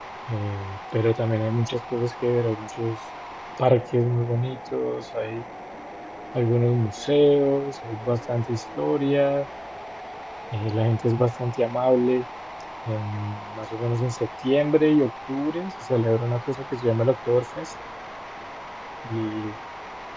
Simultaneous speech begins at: none

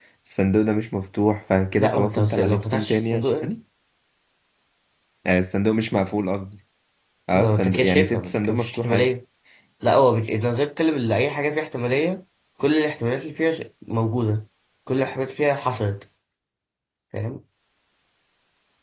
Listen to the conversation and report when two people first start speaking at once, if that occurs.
1.8 s

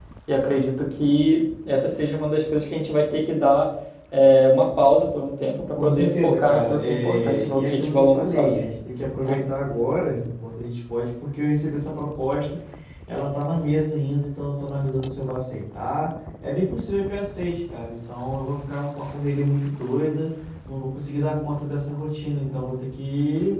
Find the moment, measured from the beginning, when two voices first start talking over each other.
5.8 s

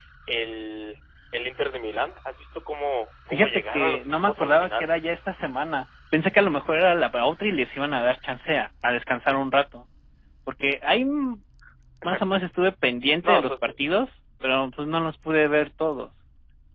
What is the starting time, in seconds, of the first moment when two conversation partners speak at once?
3.3 s

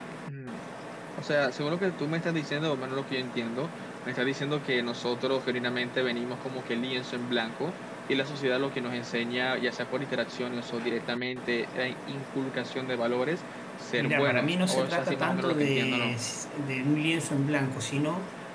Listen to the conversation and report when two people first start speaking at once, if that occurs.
14.0 s

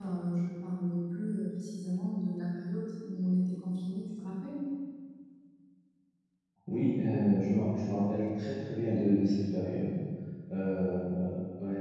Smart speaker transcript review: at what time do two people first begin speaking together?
none

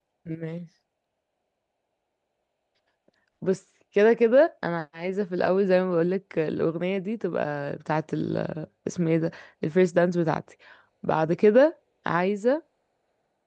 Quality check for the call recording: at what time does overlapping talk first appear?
none

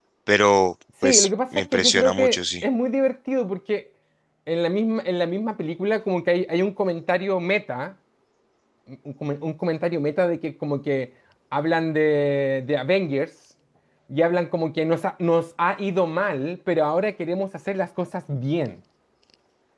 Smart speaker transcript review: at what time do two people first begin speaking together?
1.0 s

